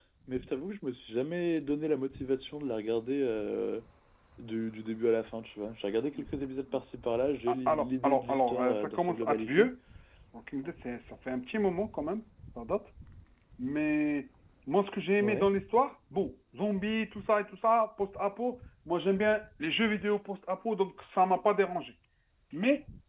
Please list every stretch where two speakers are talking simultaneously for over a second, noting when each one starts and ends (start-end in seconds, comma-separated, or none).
7.7-9.7